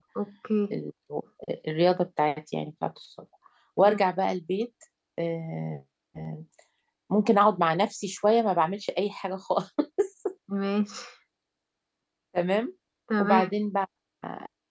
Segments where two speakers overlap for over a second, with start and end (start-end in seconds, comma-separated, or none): none